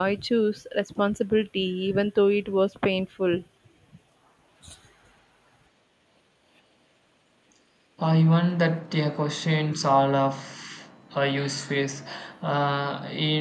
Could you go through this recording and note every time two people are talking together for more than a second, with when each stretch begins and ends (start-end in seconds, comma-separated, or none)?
none